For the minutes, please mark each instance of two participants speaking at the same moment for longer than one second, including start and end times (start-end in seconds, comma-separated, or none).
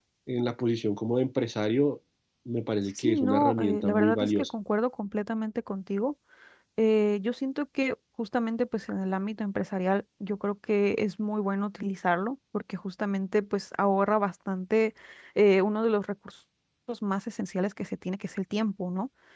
3.0-4.5